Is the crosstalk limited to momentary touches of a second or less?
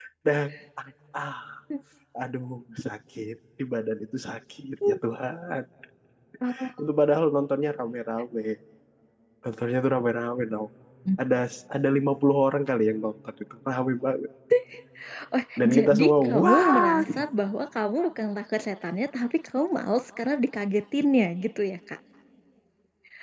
No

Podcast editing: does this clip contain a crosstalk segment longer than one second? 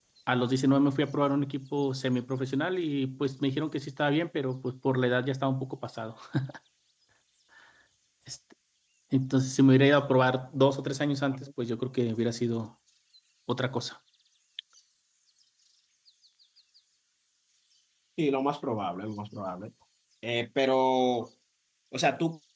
No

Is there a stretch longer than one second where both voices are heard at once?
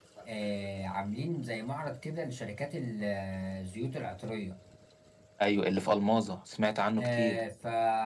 No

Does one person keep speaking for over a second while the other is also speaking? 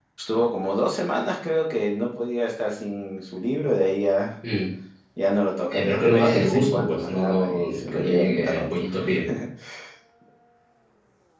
Yes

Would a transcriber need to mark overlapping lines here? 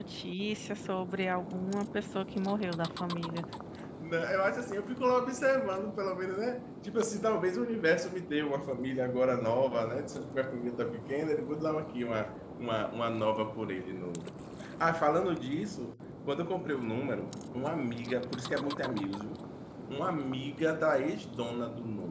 No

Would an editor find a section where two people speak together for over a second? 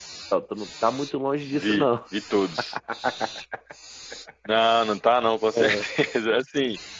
No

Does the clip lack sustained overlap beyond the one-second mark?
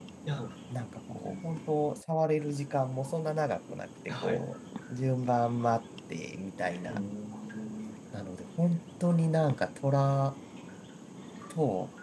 Yes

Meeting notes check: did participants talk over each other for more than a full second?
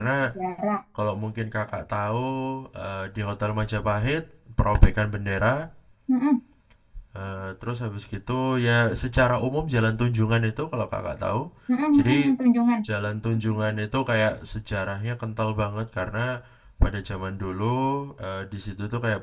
No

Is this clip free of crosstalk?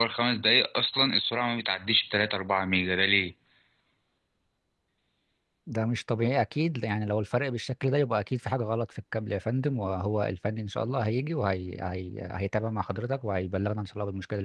Yes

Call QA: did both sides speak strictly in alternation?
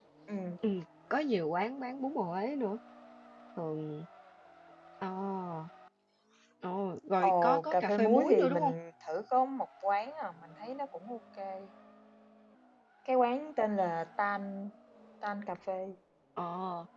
No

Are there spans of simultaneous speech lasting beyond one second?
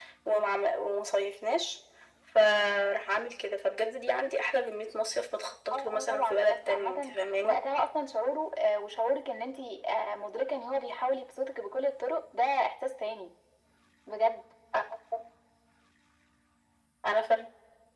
Yes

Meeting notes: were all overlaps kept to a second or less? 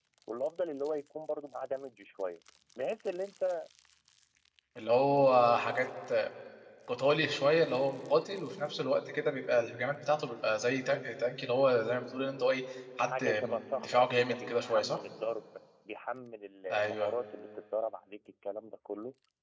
No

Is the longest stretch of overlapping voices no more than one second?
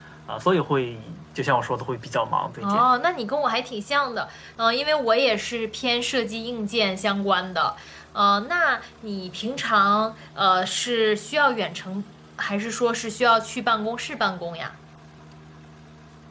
Yes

